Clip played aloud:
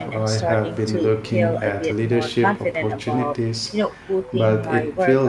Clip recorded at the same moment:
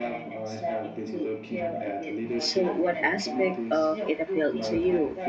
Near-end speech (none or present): present